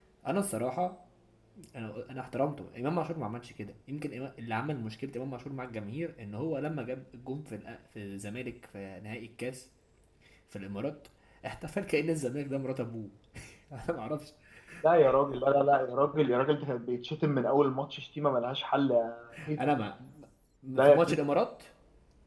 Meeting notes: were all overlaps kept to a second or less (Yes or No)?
Yes